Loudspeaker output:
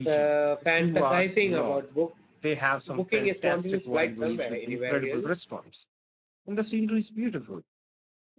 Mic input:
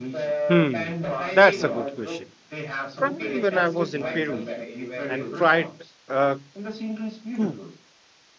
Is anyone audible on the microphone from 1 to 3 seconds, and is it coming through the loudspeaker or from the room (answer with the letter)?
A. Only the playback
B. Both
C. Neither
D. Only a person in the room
B